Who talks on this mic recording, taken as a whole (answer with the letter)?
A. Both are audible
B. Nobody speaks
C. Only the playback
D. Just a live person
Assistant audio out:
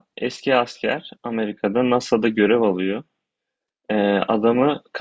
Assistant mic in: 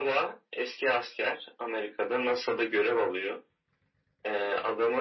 C